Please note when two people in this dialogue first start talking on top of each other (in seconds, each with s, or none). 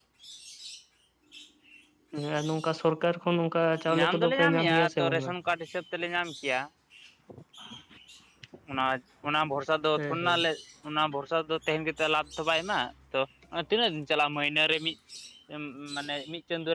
4.0 s